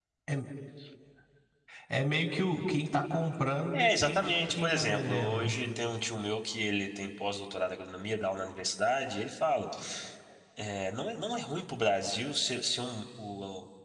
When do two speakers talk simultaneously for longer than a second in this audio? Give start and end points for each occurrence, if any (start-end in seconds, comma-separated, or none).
3.7-5.5